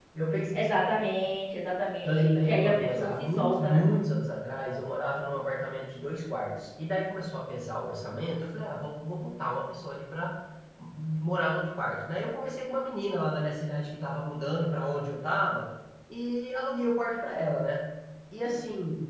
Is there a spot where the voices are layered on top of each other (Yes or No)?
Yes